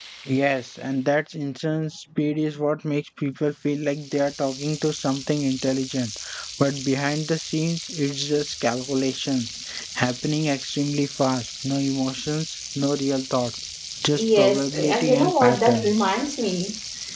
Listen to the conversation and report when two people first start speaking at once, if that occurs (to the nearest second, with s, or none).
14 s